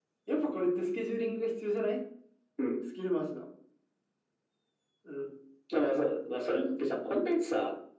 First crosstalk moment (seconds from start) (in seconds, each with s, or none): none